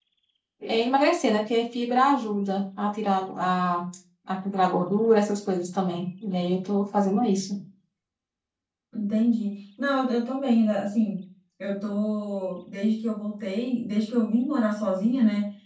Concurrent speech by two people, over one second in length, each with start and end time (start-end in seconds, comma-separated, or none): none